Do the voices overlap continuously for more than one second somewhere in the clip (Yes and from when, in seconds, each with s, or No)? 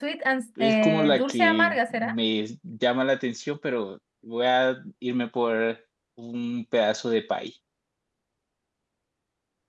Yes, from 0.6 s